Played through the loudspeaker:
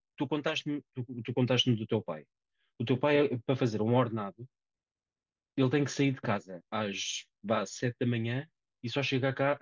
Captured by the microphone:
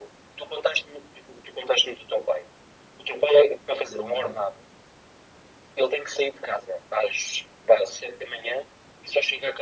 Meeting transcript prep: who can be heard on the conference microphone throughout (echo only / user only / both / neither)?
both